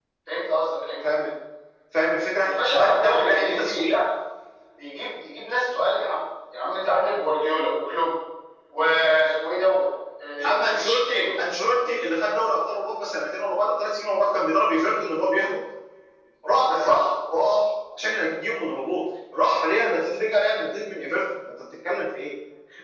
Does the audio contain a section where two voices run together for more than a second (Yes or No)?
Yes